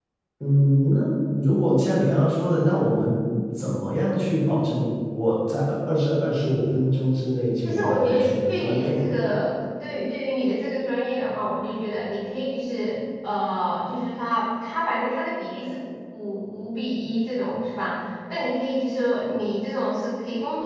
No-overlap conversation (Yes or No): No